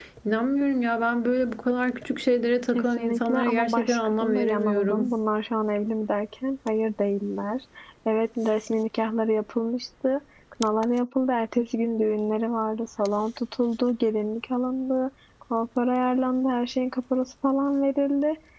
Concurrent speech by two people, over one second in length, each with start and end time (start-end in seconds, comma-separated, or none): 2.7-5.1